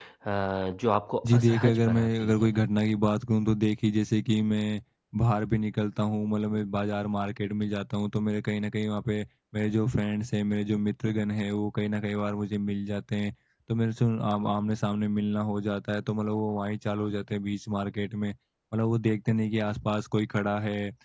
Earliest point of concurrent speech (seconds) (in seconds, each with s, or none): 1.2 s